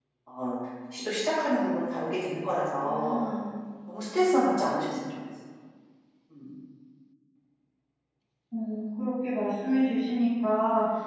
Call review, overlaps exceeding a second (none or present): none